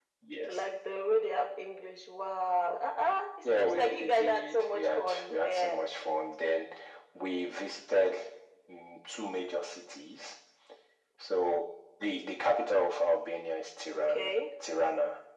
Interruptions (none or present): present